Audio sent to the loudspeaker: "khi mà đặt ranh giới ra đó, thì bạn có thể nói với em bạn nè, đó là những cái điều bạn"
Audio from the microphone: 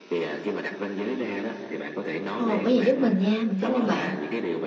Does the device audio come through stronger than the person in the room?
No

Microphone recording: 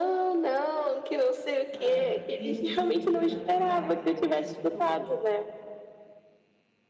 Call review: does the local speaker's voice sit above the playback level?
No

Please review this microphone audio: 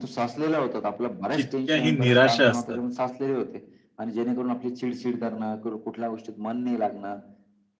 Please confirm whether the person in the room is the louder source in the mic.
Yes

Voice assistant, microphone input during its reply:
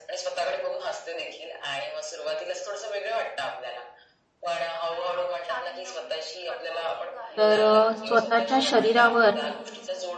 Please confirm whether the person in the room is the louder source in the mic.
Yes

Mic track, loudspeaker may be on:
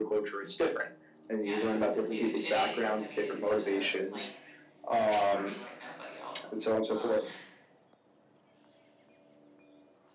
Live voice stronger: No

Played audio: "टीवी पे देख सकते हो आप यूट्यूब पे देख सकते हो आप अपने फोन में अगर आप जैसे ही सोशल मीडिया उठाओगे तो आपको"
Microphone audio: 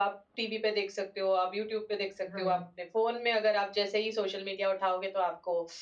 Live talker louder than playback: No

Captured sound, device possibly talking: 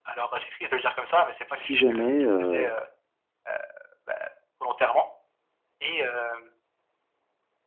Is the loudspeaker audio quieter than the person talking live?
Yes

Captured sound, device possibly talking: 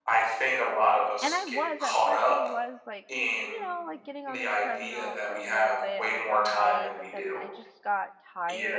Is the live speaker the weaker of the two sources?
Yes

